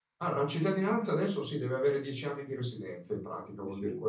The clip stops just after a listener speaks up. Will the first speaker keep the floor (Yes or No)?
Yes